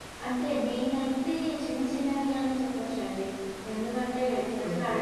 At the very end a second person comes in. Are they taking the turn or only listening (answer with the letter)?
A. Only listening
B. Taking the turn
A